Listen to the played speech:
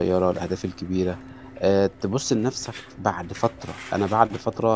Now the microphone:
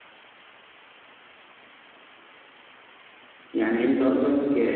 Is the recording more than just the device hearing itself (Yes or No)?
Yes